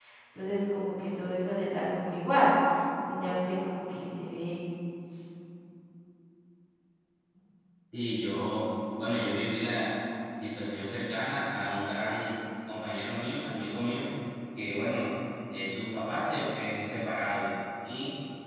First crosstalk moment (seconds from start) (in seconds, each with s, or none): none